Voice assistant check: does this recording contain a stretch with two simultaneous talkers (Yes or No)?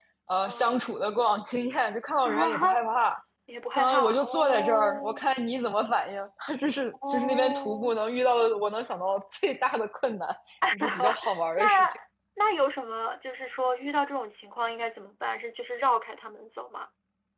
Yes